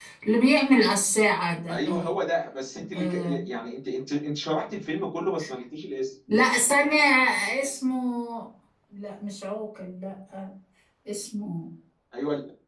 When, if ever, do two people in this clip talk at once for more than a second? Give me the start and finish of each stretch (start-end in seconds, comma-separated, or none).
none